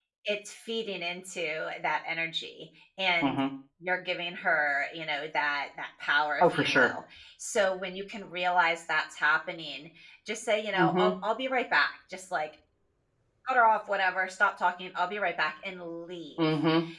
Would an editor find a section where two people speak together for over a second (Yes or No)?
No